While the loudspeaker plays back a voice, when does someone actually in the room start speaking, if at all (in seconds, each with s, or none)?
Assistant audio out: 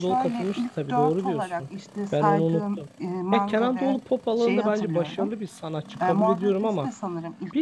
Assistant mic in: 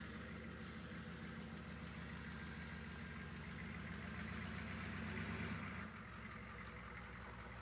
none